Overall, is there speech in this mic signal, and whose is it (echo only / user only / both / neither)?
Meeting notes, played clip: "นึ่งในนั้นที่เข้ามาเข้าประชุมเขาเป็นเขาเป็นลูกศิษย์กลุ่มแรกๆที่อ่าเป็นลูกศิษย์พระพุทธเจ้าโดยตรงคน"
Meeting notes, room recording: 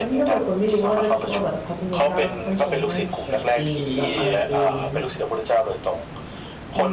both